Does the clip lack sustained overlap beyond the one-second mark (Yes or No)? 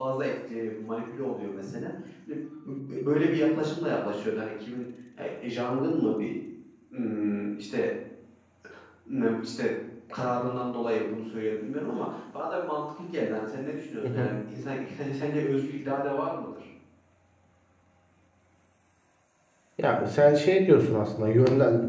Yes